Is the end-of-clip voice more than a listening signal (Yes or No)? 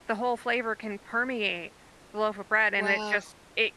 No